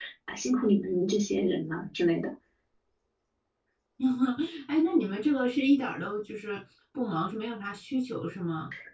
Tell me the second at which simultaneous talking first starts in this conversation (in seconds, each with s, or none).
none